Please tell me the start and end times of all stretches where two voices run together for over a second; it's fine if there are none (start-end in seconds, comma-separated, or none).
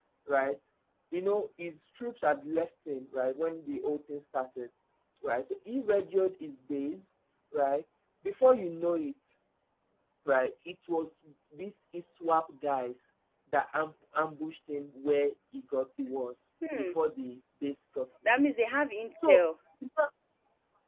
none